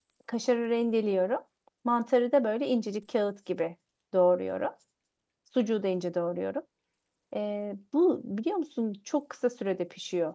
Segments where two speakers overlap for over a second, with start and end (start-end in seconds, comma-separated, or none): none